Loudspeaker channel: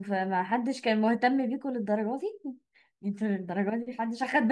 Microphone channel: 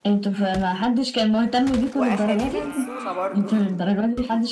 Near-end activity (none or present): present